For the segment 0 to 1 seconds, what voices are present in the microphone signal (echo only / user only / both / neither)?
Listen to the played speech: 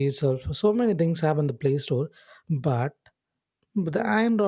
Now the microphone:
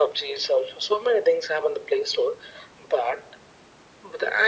echo only